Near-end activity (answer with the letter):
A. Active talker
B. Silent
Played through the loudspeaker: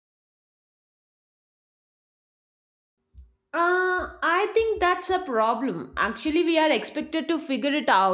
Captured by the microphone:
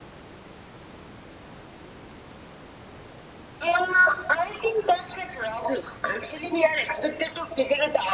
B